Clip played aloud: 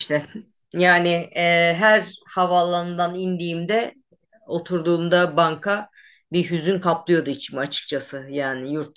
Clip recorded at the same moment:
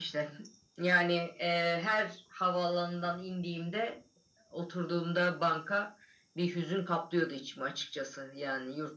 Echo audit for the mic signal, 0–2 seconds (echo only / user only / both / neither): echo only